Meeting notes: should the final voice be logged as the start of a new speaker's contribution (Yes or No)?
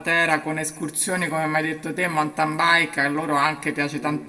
No